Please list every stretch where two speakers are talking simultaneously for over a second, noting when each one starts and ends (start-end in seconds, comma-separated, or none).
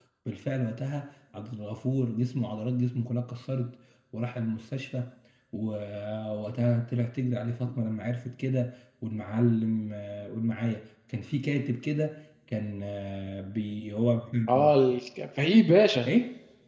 none